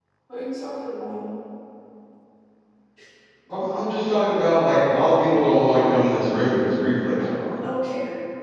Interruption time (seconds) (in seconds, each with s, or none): none